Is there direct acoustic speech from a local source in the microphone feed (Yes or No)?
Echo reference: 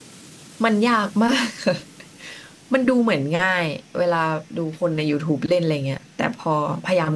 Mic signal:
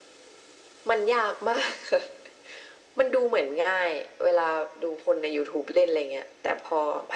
No